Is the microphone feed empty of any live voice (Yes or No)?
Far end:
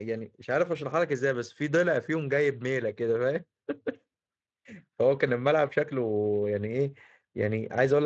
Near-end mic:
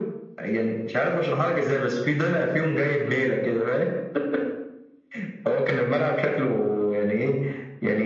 Yes